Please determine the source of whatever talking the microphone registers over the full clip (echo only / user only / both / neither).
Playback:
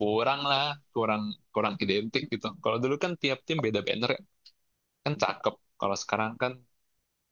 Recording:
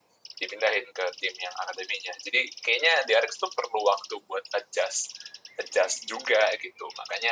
user only